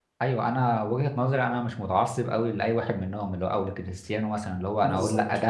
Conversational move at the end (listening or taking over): listening